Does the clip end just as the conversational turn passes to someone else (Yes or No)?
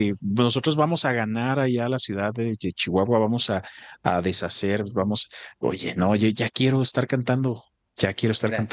Yes